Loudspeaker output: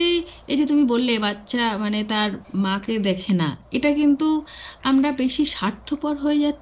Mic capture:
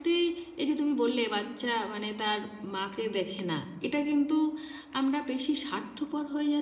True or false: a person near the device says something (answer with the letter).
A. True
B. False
B